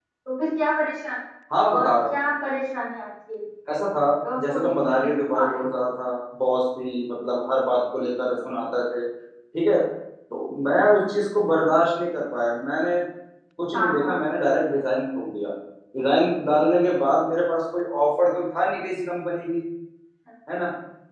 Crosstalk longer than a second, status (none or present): present